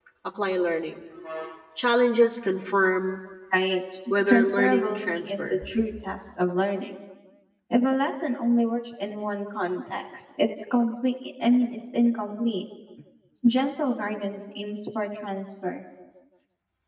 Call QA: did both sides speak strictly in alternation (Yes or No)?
No